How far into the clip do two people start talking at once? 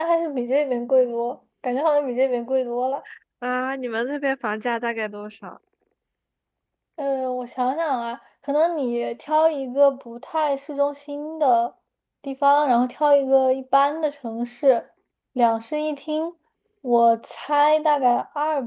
none

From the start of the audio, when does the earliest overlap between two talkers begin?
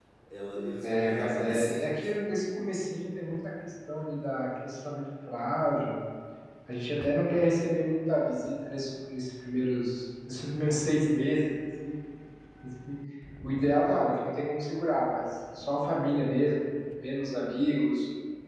0.8 s

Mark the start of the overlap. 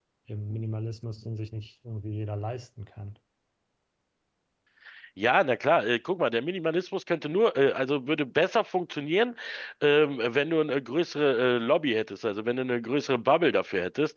none

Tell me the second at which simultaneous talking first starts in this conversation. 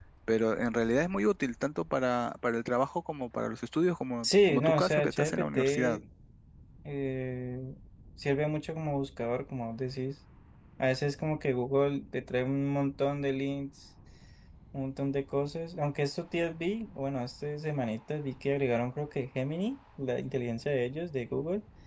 4.2 s

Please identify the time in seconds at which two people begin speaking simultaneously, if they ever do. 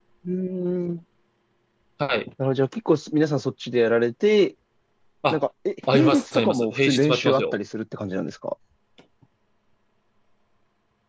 5.9 s

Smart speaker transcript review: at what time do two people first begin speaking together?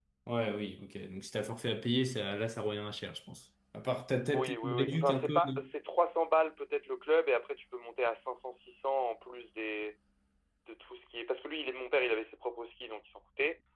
4.3 s

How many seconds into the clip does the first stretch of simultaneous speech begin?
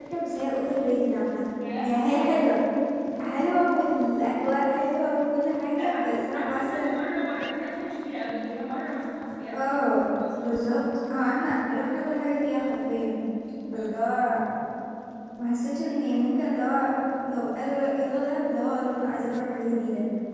5.8 s

